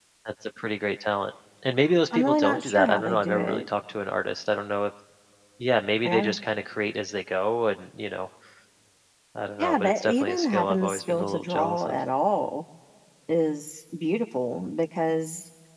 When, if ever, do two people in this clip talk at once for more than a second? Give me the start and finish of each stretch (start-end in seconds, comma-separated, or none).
2.1-3.6, 9.6-11.9